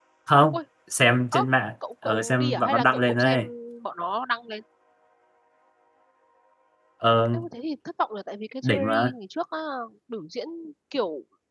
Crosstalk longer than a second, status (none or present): present